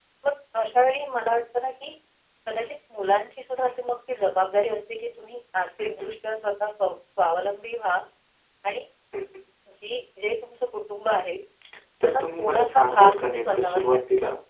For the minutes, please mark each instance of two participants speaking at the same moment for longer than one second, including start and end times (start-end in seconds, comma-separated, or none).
12.0-14.0